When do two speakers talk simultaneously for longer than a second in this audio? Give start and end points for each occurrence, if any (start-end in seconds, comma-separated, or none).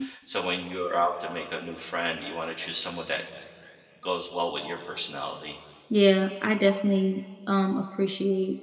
none